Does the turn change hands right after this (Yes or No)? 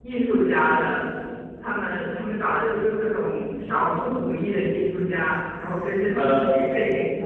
No